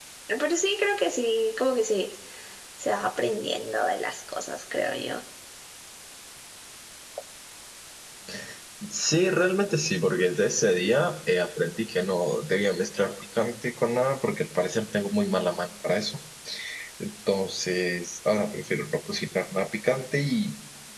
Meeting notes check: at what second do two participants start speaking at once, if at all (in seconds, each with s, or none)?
none